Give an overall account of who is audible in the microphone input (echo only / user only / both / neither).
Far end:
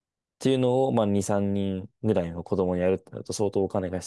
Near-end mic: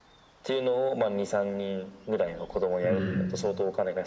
both